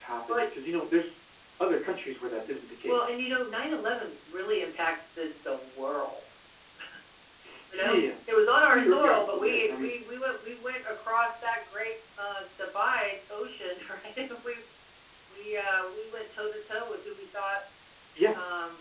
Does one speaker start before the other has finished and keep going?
Yes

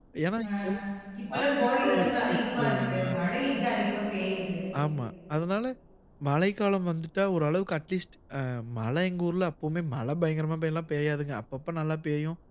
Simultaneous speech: Yes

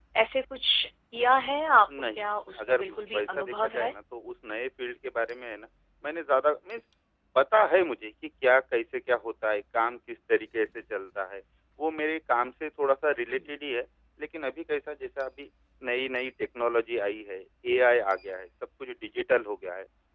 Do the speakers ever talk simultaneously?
Yes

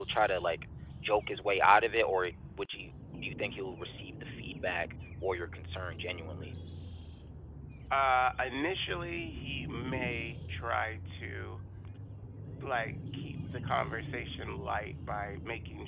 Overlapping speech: No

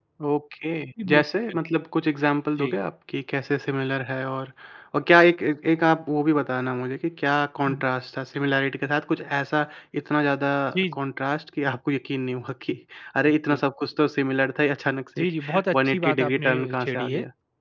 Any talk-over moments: Yes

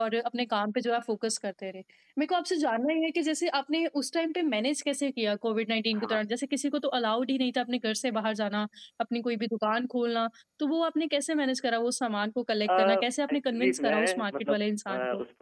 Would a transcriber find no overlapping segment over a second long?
No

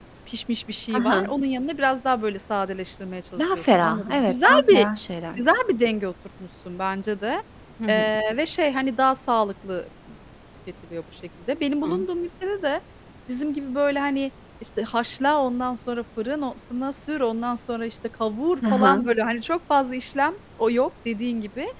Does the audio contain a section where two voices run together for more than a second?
Yes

